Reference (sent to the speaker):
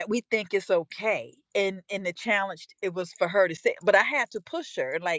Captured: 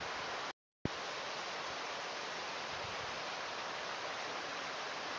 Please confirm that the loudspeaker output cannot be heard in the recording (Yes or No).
Yes